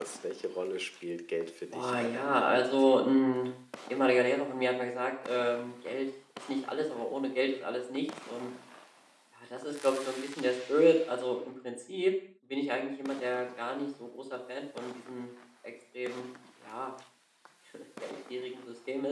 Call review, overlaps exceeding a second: present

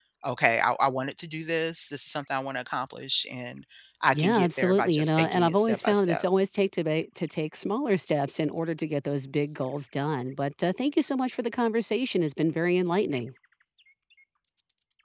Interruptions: present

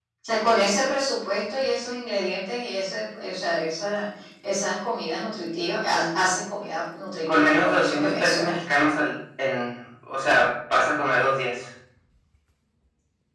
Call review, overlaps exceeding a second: present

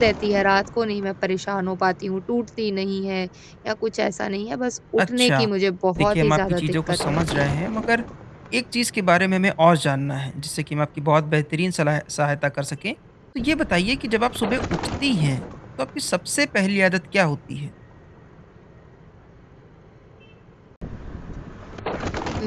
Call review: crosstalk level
present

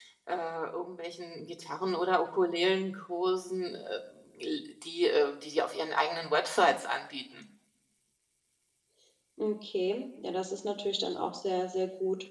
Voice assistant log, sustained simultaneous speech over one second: none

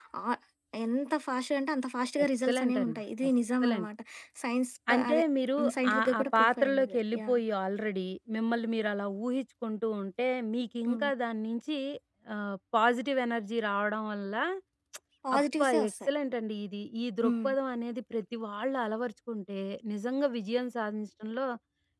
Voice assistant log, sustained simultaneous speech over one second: present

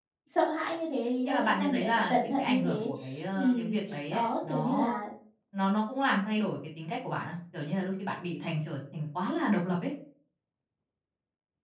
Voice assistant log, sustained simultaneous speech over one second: present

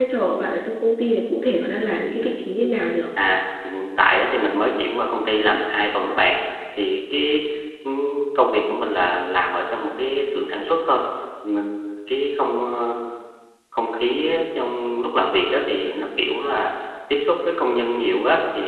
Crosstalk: none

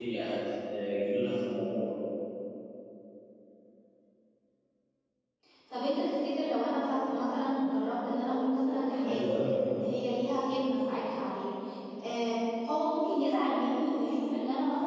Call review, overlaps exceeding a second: none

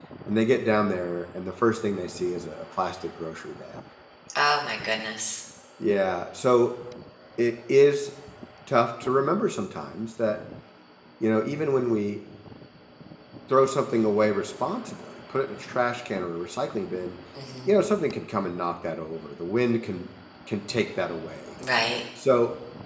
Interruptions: none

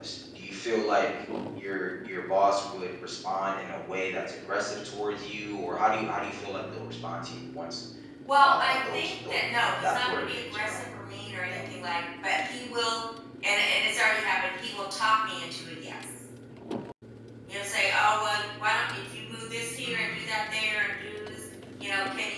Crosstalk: present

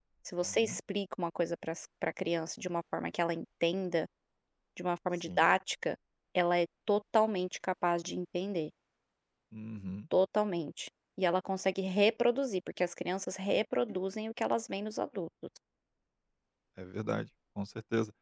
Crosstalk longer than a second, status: none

